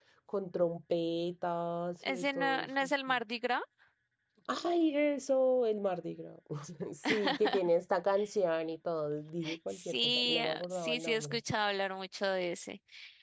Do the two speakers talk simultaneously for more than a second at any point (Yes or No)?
Yes